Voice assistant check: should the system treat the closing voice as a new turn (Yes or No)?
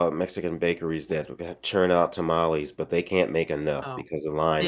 Yes